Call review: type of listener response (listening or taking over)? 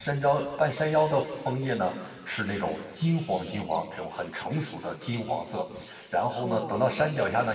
listening